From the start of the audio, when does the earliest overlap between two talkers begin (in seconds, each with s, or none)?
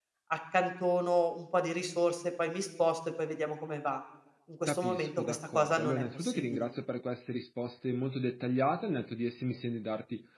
4.7 s